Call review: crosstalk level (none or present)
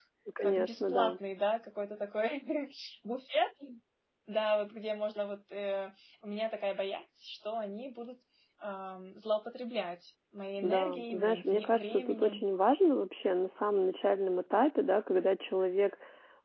present